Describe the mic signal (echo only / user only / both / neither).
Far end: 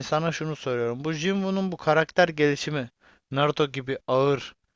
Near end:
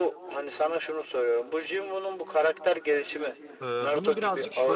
both